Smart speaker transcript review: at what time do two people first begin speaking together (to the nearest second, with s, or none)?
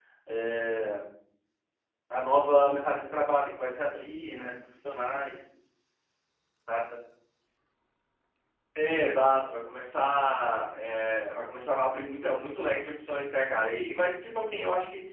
none